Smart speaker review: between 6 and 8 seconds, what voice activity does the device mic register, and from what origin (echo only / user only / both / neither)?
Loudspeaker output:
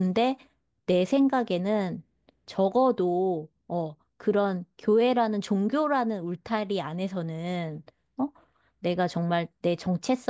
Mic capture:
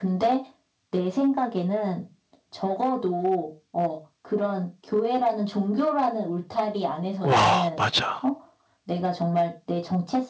both